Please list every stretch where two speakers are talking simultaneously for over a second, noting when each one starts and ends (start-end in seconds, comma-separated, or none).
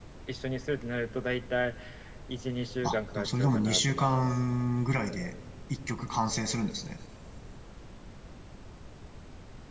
2.8-4.3